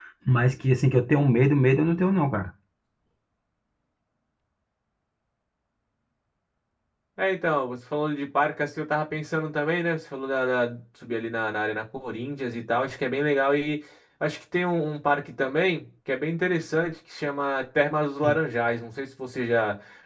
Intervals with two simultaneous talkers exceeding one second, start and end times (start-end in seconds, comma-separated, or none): none